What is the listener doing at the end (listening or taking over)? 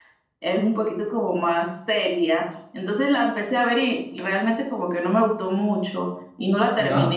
listening